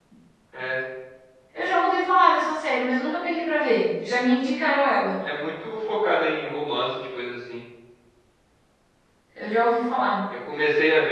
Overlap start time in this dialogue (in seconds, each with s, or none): none